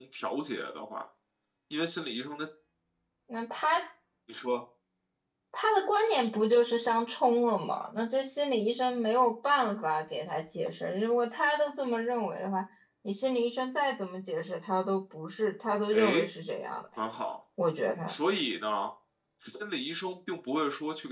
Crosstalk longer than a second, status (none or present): none